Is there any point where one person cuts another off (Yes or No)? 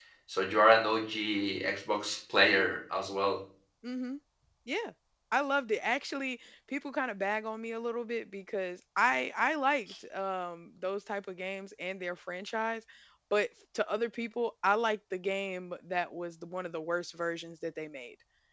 No